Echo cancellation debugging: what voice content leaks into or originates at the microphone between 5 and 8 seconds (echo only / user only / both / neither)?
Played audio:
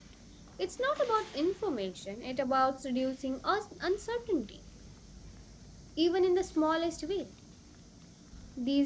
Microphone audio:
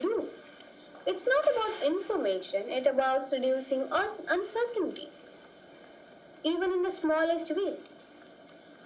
echo only